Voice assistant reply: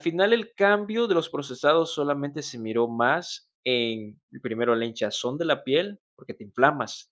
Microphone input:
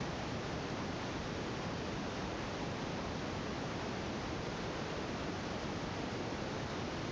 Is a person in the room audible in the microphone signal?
No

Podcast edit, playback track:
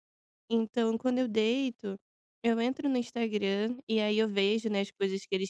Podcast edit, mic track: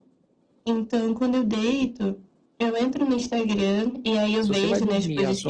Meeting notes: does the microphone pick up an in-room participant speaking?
Yes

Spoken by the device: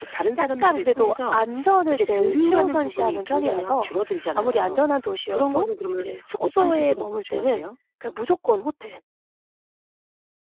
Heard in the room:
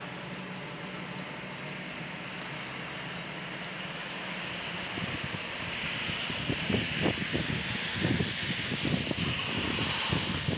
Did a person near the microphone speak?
No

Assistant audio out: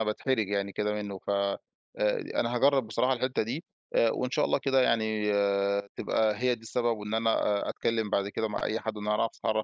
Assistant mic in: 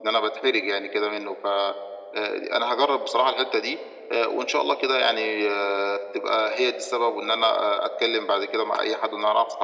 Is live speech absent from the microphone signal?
Yes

